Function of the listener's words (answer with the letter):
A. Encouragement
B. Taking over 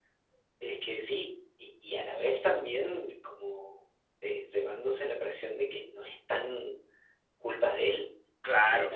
A